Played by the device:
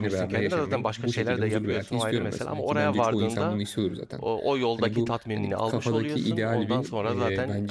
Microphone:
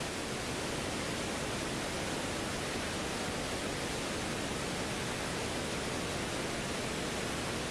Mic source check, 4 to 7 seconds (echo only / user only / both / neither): neither